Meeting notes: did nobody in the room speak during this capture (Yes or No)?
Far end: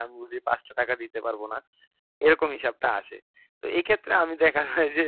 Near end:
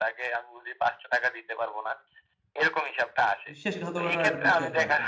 No